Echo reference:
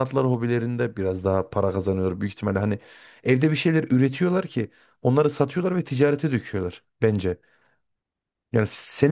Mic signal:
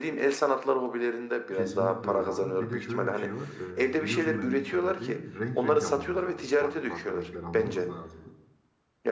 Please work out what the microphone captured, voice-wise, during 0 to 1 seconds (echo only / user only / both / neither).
echo only